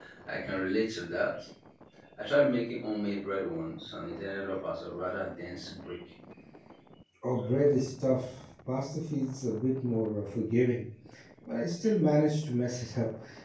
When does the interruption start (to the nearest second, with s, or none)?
none